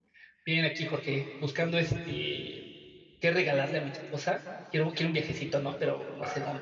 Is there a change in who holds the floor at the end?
Yes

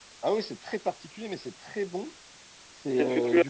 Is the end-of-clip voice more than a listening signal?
Yes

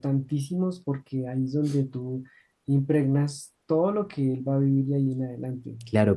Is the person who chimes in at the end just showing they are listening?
No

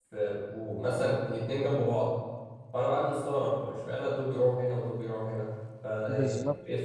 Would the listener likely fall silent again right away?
No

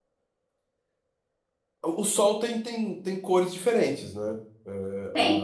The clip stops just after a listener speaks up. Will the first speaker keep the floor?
Yes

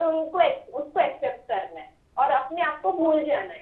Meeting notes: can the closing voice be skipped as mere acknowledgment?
Yes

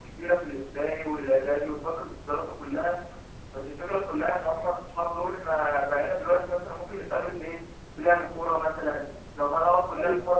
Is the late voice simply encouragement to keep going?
Yes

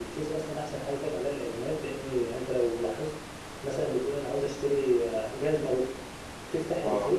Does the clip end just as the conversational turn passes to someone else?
No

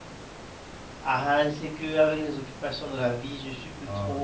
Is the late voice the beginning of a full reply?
No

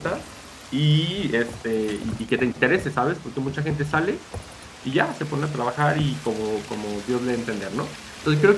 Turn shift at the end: No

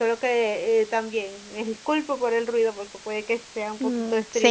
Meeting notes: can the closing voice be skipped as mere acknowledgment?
No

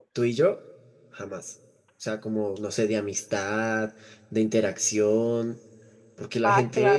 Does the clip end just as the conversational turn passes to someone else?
No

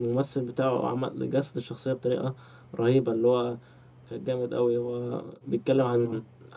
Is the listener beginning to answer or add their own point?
No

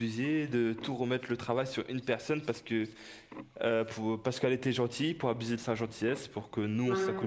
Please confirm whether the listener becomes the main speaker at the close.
No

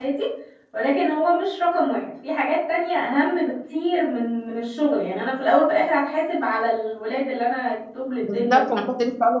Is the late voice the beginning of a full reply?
Yes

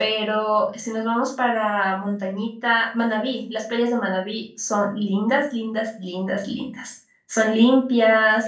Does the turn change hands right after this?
Yes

